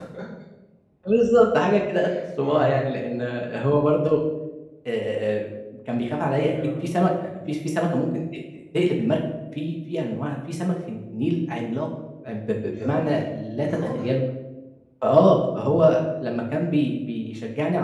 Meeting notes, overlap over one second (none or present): none